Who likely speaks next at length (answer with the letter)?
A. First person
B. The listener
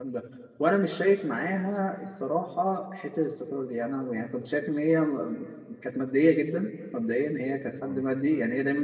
A